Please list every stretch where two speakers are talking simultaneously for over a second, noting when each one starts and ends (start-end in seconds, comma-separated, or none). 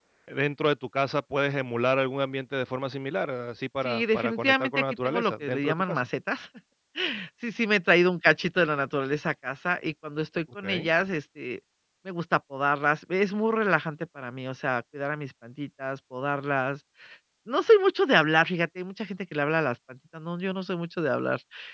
3.8-6.0